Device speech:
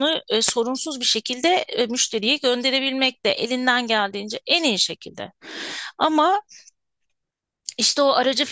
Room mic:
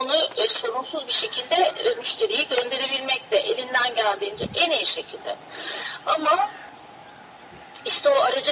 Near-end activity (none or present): none